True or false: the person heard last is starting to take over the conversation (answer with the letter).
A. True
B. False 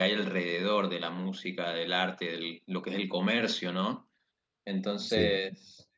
B